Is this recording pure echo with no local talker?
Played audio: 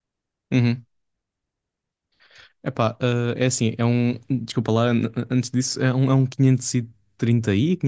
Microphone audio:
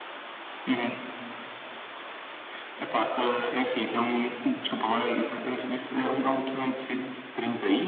Yes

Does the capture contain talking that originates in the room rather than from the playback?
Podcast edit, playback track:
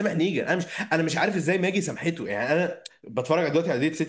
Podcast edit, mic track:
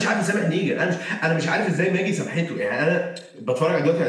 No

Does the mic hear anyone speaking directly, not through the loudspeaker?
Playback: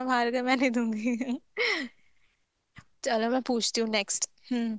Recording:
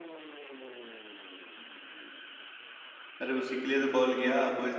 Yes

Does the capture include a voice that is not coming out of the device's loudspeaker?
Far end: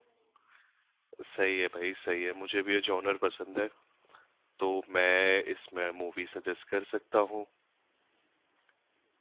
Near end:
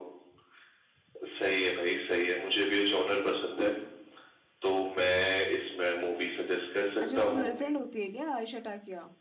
Yes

